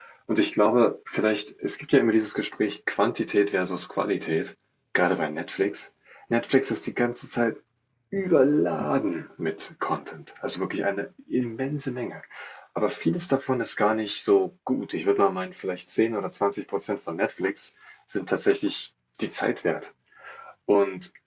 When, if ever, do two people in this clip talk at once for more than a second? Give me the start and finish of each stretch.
none

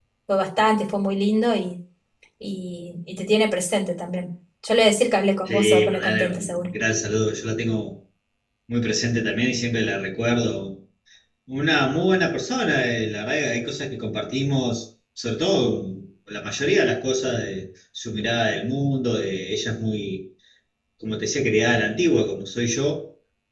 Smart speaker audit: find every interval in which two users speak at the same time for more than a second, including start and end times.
5.5-6.7

